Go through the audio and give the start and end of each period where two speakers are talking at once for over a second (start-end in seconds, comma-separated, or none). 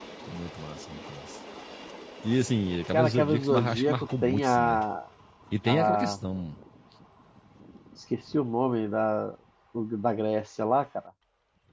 2.9-4.8